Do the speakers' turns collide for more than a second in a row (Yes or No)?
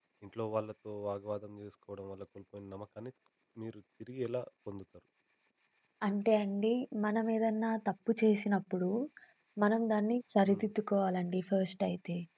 No